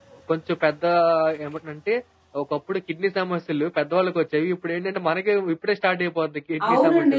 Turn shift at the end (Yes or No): Yes